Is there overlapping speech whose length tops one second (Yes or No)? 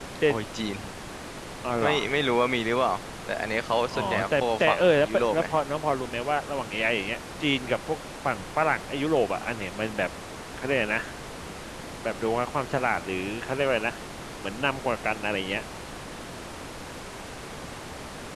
Yes